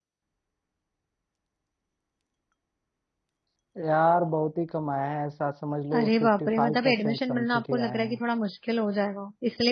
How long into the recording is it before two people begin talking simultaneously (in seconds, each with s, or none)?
5.9 s